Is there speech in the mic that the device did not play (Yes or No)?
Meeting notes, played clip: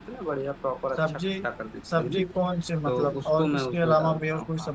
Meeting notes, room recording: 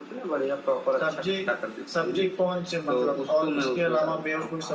No